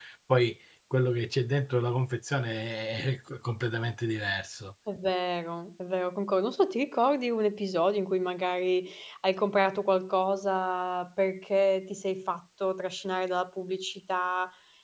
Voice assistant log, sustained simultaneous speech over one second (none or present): none